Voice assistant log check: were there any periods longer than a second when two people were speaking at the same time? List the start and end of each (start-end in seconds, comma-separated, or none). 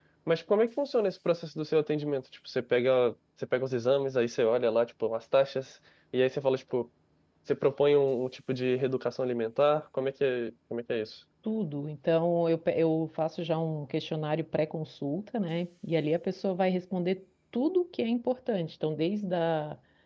none